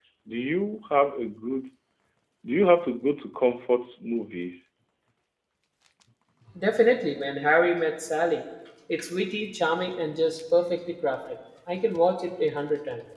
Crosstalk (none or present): none